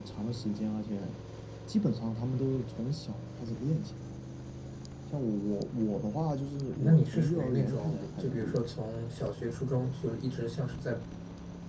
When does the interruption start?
6.7 s

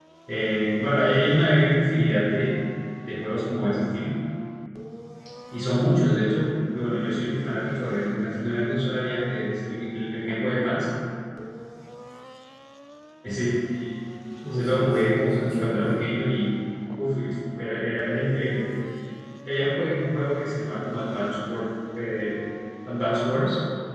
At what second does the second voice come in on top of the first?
14.5 s

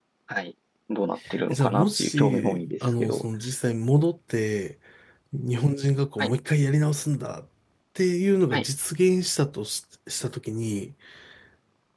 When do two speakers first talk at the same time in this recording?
1.5 s

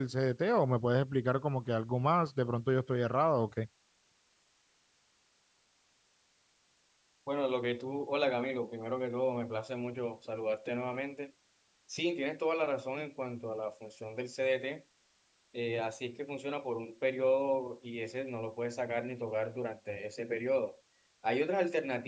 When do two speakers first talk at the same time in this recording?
none

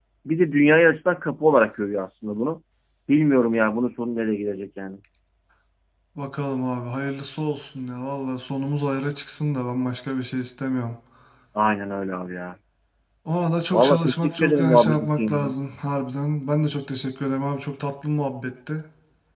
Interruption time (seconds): 13.7 s

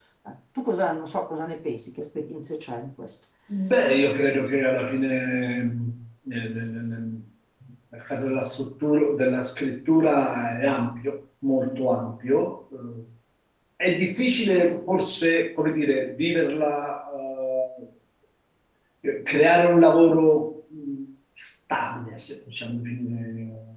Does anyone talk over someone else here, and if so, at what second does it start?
none

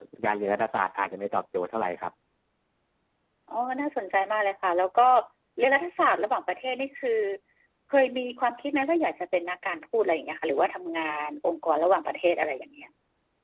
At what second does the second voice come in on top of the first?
none

